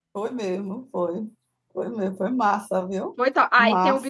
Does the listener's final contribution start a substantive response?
Yes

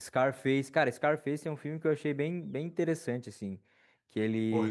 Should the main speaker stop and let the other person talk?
Yes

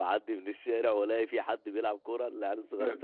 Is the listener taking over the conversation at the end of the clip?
No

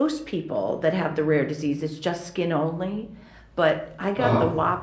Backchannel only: Yes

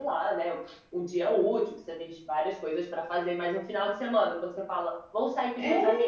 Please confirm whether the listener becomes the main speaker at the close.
No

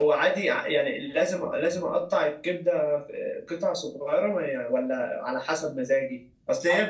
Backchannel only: Yes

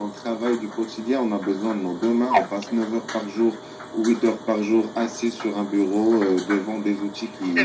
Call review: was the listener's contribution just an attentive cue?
Yes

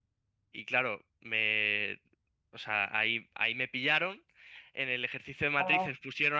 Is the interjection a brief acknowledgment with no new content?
Yes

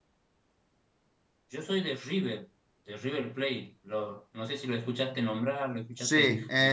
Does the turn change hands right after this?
Yes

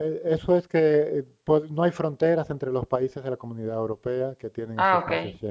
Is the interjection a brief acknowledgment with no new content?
Yes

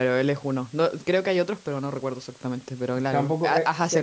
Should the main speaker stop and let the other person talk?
Yes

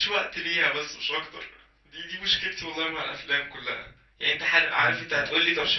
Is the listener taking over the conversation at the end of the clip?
No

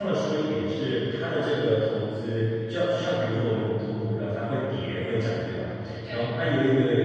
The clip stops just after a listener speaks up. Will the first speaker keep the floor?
Yes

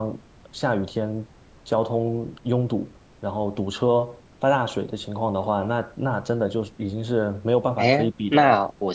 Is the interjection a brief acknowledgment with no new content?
No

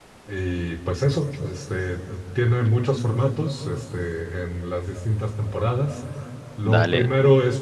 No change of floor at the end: Yes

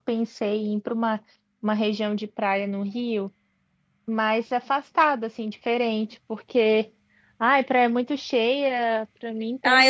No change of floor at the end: No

